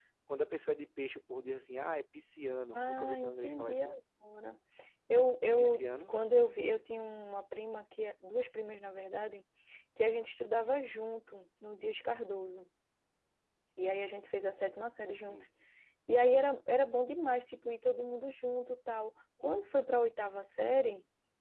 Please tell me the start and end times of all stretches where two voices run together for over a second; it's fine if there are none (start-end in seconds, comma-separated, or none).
2.7-4.0